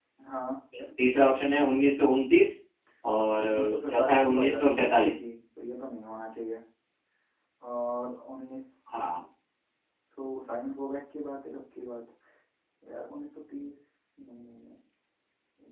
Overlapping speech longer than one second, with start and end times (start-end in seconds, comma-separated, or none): 3.4-5.2